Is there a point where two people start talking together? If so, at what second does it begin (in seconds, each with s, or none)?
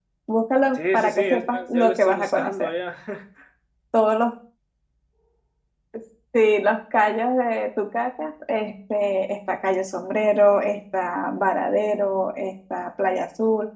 0.8 s